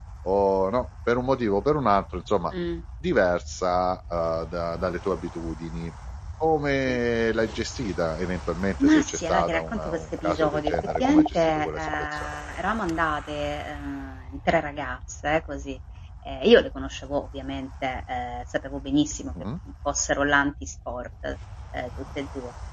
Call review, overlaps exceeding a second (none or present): present